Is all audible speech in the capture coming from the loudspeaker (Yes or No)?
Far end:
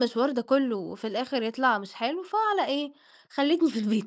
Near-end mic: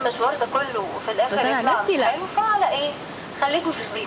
No